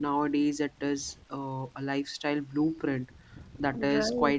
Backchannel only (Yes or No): Yes